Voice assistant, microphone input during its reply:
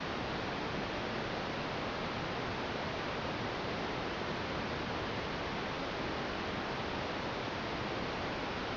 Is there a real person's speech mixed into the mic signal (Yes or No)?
No